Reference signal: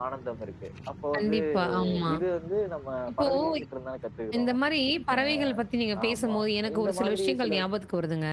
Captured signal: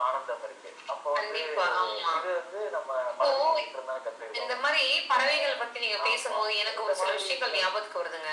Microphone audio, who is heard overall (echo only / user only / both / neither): echo only